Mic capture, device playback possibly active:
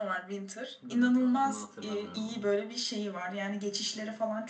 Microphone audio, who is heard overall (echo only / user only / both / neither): both